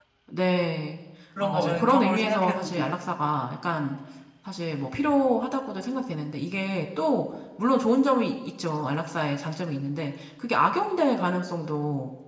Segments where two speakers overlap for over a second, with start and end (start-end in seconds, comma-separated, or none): 1.4-2.9